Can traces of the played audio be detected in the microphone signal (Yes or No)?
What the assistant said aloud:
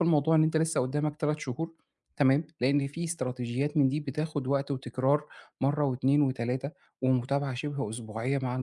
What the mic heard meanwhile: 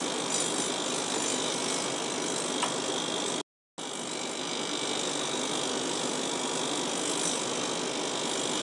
No